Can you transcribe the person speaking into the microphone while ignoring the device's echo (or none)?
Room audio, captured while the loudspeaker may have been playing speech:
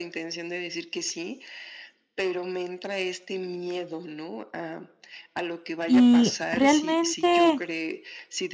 Y realmente,